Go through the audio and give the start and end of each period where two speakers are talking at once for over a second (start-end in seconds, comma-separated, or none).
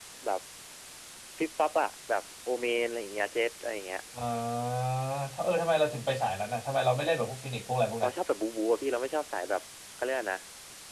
none